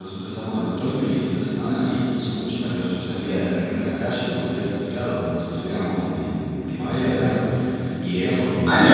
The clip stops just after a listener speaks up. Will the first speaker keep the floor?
Yes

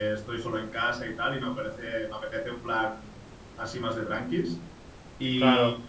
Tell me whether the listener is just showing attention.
Yes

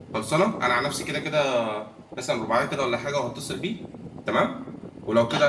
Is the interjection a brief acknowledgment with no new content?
Yes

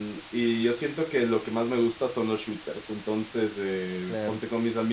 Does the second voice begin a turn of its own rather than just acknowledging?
No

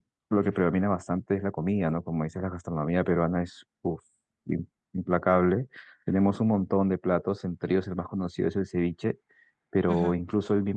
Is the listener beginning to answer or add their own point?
No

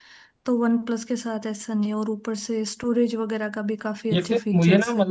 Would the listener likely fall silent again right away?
No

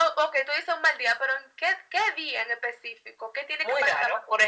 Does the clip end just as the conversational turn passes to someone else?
Yes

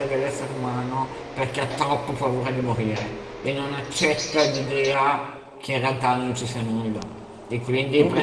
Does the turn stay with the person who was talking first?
Yes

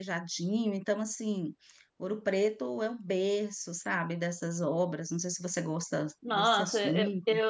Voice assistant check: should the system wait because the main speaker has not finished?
No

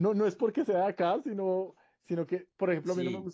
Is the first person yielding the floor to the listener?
No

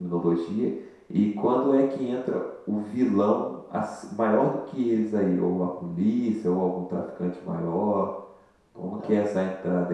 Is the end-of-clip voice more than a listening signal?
No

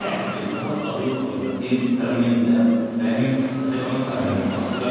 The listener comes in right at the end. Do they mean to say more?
No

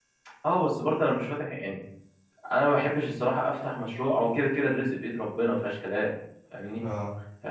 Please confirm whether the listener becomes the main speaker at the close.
No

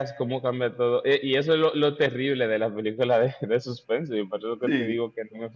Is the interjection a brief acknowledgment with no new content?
Yes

